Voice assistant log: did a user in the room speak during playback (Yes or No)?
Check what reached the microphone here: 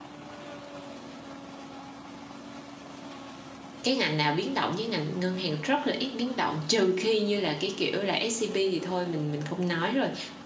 Yes